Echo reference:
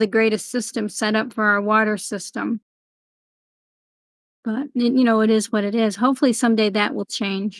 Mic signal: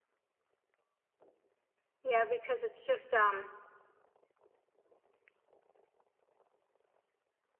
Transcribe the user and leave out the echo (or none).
yeah because it's just um